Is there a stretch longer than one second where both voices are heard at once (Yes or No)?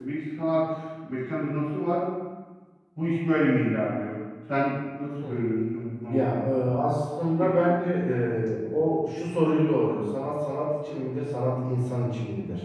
No